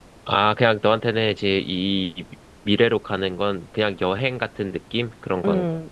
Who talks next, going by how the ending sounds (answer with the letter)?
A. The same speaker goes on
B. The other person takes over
B